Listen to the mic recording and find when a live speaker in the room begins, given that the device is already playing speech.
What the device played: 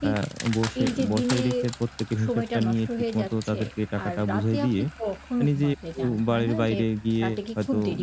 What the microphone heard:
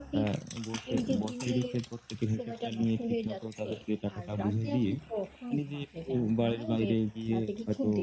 none

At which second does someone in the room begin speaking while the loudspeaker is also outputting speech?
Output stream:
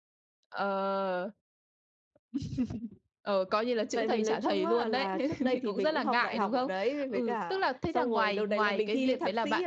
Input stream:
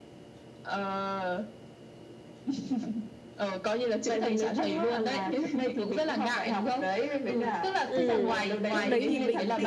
8 s

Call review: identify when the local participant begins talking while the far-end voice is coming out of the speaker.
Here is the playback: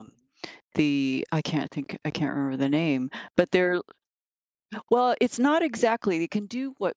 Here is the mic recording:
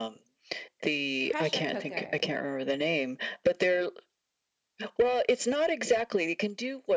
1 s

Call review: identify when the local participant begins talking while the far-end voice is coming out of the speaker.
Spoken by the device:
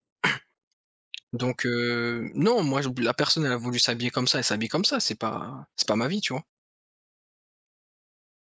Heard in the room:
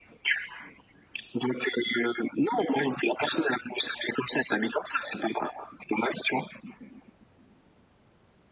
none

